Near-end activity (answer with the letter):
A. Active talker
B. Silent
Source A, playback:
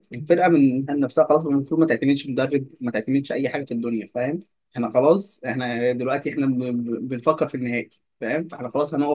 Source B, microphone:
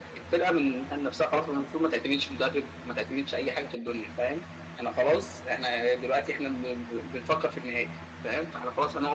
B